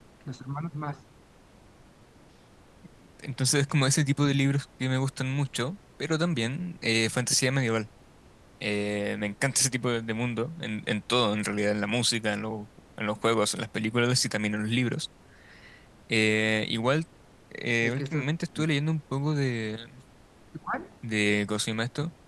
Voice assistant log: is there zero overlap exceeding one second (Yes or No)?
Yes